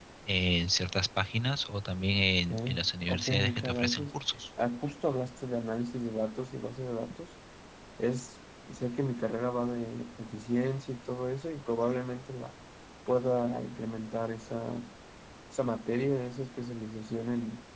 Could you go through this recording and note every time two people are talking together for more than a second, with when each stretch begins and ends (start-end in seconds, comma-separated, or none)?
2.5-4.2